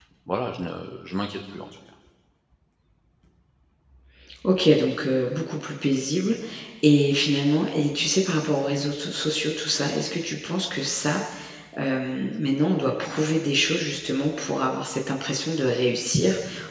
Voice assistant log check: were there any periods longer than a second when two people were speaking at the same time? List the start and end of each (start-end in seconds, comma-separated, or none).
none